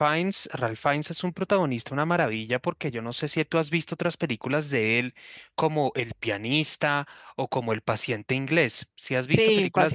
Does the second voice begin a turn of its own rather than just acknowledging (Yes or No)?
Yes